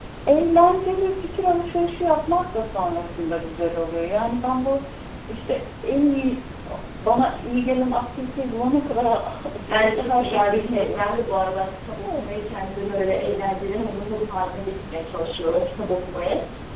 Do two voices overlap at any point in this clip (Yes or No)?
Yes